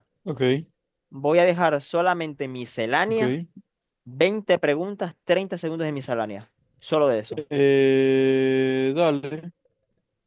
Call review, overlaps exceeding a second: none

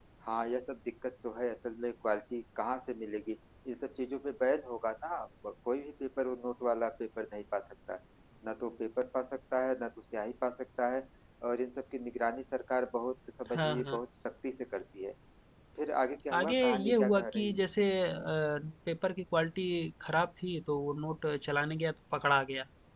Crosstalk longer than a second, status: present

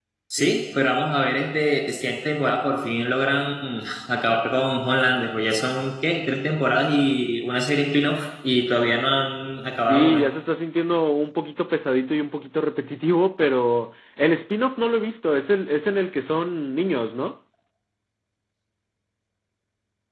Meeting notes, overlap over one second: none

